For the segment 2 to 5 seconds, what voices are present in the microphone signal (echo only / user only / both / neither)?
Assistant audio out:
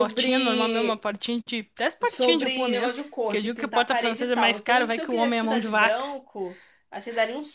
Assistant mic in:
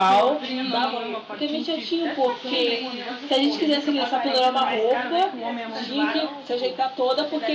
both